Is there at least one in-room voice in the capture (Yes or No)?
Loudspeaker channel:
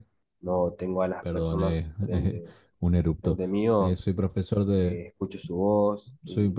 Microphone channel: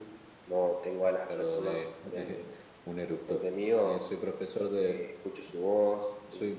No